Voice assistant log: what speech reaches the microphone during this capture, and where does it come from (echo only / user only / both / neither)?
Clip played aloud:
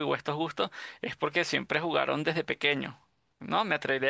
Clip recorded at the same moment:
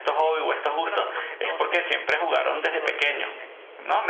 both